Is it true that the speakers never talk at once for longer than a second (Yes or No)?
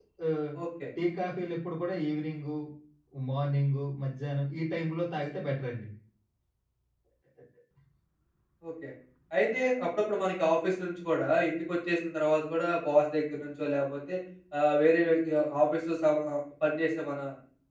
Yes